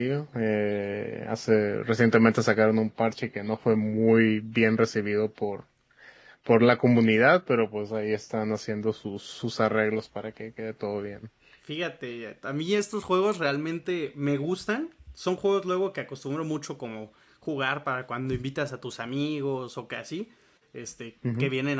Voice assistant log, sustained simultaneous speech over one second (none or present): none